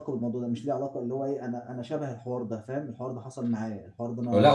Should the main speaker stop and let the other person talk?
Yes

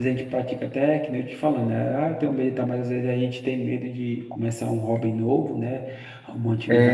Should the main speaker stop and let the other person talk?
No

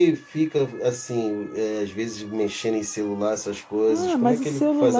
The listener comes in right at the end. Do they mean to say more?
Yes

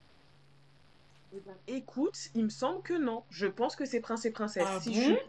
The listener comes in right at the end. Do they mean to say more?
No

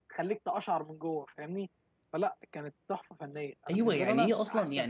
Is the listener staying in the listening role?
No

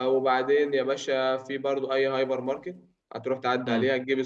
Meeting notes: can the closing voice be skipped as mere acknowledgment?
Yes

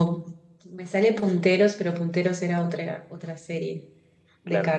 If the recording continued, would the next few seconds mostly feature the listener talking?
No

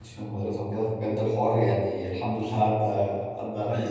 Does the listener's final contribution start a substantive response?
Yes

